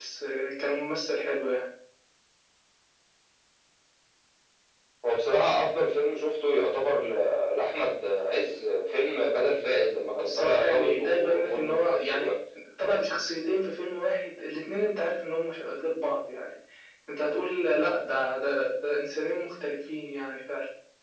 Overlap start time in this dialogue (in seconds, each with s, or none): 10.1 s